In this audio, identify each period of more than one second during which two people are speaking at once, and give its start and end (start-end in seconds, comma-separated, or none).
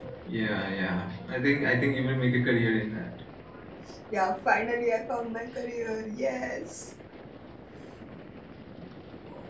none